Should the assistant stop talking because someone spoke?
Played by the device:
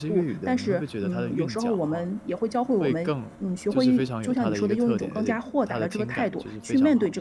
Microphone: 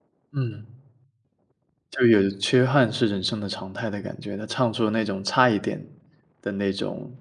Yes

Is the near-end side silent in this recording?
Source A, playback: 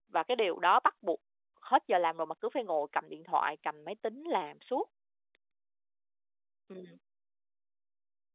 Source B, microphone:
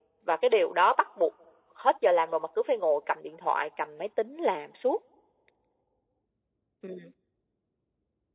Yes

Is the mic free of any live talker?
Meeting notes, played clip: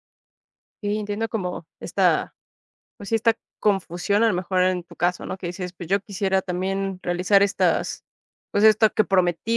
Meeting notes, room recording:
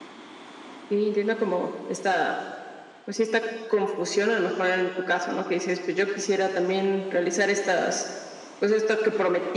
Yes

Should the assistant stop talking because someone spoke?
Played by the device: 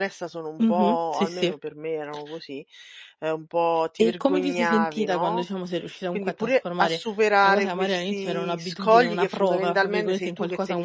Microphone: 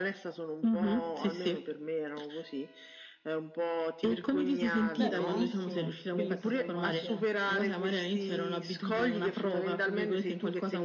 Yes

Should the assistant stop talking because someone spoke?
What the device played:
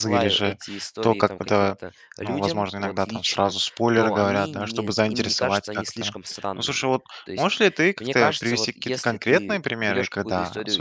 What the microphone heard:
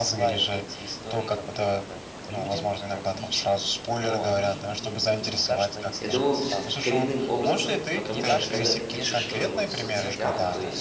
Yes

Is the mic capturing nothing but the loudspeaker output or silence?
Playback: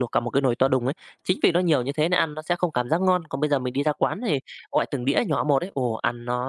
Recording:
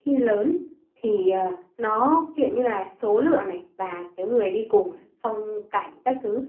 No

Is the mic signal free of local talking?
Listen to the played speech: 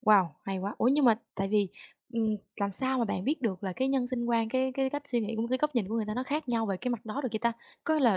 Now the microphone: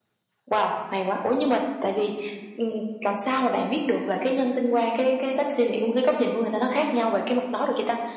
Yes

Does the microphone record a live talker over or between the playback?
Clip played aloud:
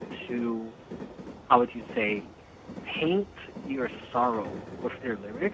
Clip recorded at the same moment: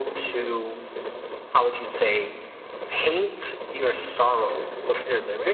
No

